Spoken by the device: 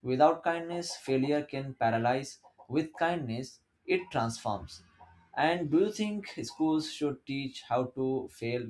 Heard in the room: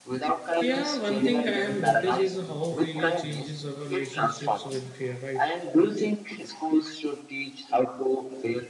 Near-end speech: present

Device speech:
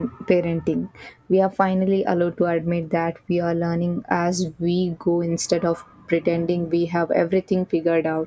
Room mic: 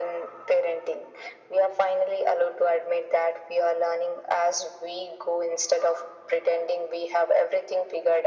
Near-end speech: none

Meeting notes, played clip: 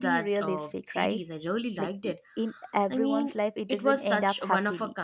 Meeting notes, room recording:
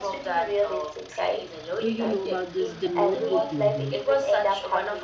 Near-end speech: present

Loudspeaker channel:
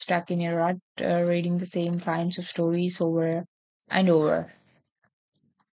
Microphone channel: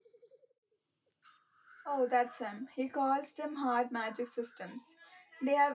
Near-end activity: present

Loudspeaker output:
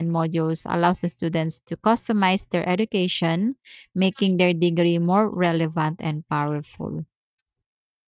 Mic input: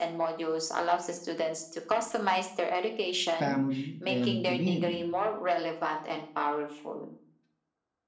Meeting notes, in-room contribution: present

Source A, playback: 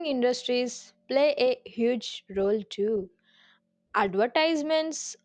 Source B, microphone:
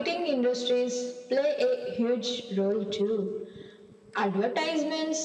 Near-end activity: none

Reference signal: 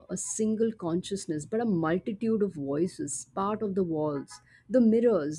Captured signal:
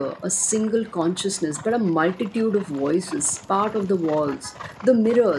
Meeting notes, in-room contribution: none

